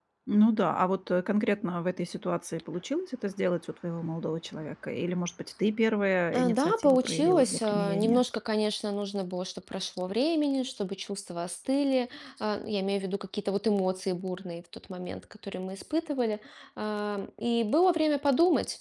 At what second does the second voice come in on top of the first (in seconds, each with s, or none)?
6.3 s